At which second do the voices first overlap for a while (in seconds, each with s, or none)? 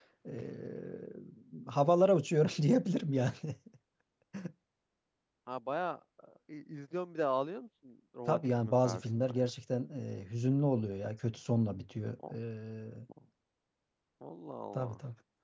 8.3 s